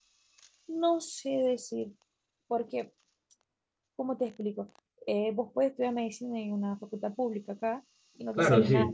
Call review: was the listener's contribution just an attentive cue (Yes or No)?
No